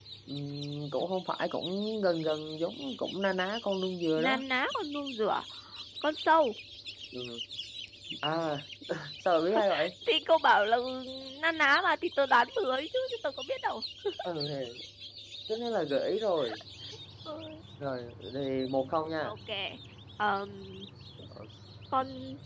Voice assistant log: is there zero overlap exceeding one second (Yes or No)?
Yes